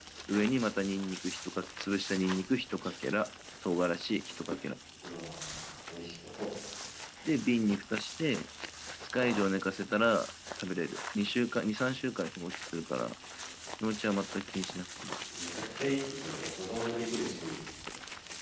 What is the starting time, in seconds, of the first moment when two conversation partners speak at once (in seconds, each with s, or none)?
none